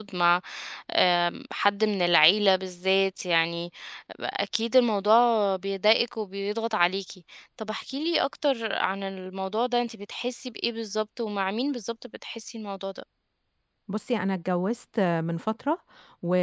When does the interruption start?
none

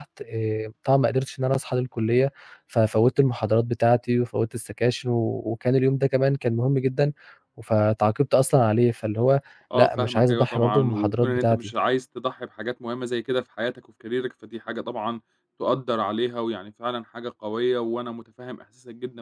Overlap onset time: 10 s

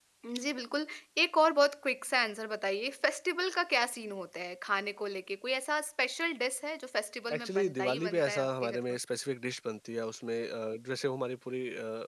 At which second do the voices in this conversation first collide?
7 s

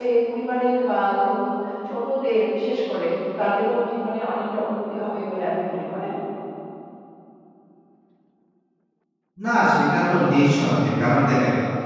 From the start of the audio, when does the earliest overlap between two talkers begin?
none

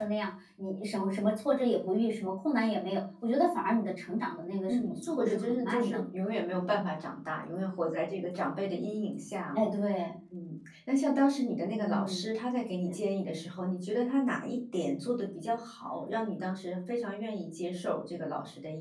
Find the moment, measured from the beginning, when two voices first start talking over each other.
5 s

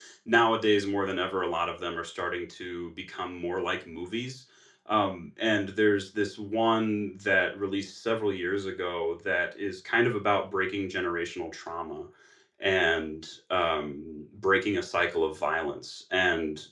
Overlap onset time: none

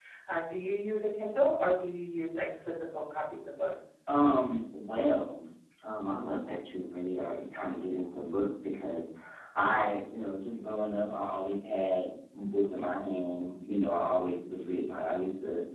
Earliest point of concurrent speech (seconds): none

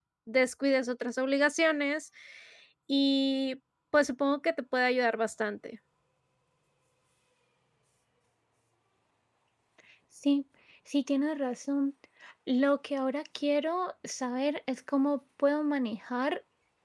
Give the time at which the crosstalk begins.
none

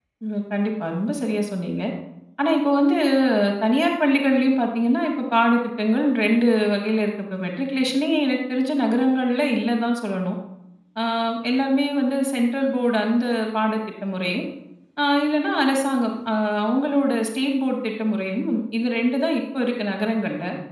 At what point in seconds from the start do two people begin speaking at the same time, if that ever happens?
none

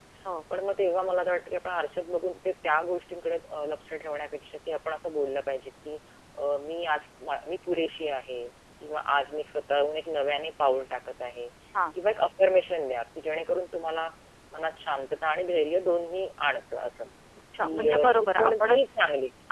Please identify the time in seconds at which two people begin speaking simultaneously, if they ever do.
18 s

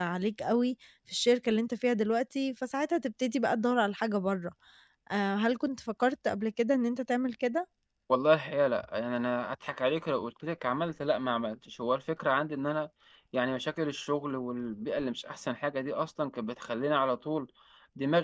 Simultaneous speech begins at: none

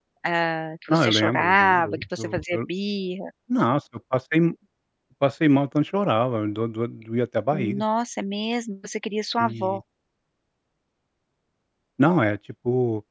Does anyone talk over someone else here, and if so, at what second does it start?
1 s

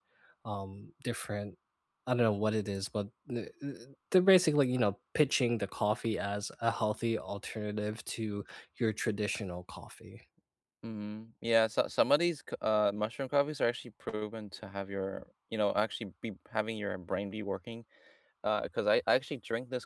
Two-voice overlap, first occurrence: none

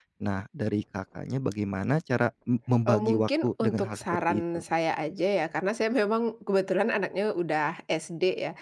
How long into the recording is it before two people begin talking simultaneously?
3 s

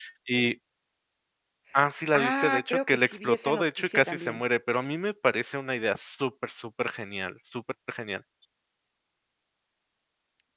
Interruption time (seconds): 2 s

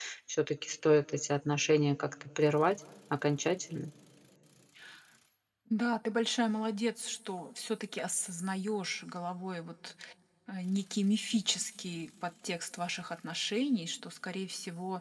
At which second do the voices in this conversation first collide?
none

